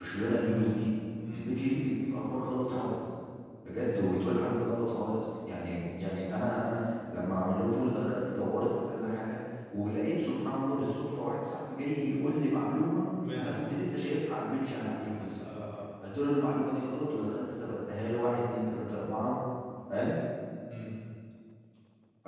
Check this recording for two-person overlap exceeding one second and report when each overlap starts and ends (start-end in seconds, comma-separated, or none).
none